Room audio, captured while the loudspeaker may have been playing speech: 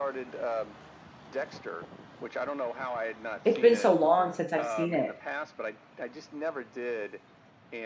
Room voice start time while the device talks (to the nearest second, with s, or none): 3 s